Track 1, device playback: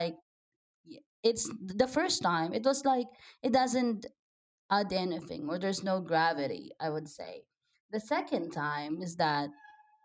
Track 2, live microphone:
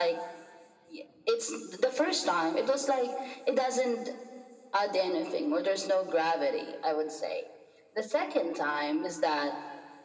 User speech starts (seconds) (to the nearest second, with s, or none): none